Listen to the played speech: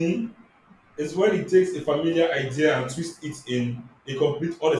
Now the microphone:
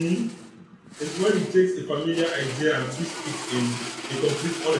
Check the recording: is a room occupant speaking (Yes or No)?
No